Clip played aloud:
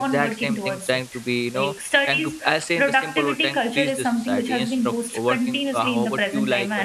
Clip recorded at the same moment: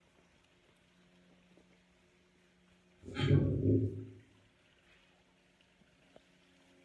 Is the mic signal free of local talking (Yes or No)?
No